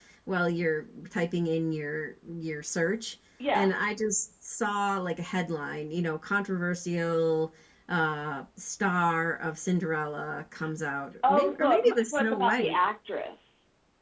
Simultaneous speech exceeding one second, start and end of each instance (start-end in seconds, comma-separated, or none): 11.3-12.8